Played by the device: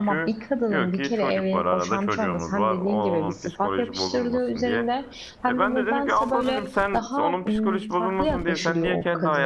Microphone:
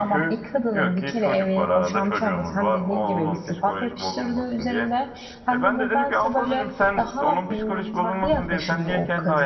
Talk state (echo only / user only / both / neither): echo only